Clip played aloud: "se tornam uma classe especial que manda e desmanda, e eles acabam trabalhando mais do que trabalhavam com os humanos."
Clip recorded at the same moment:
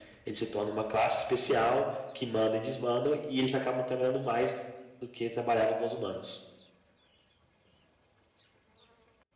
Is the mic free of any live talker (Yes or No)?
Yes